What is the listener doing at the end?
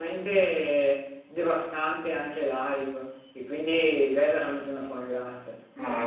taking over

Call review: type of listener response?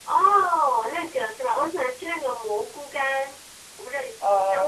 taking over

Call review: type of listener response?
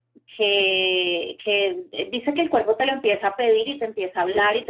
listening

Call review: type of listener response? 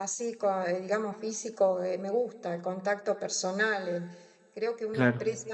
listening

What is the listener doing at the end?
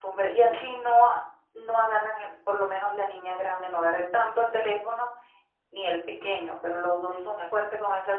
listening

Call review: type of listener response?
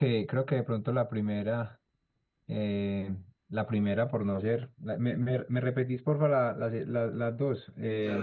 taking over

